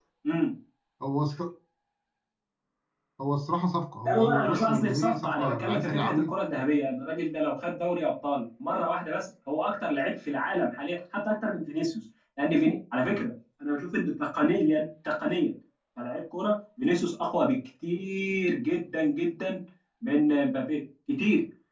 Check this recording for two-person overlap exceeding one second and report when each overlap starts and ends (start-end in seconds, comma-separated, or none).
4.0-6.3